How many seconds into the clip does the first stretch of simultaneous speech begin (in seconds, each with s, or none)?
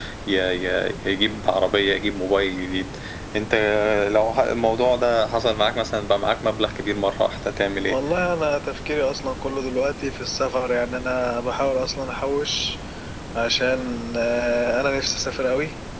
none